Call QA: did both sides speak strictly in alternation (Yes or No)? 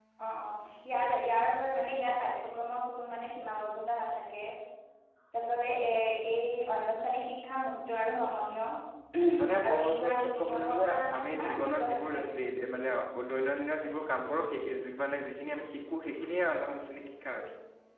No